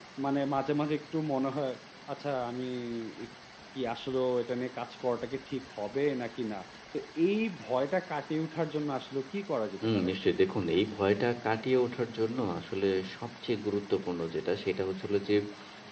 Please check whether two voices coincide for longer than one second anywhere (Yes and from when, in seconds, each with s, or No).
No